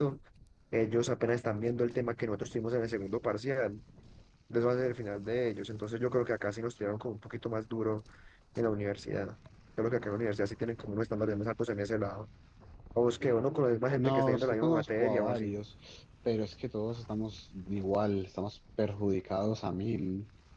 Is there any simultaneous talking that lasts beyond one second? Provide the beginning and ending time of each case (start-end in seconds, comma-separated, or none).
14.0-15.5